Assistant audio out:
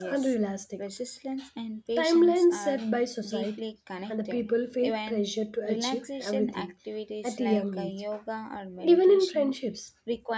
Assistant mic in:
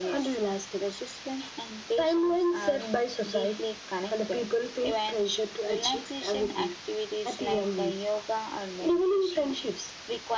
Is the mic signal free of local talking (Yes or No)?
Yes